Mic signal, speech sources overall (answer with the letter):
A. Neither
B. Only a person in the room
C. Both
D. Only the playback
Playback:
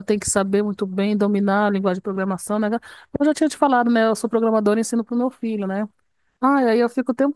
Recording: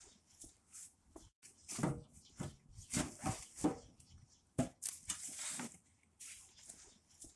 A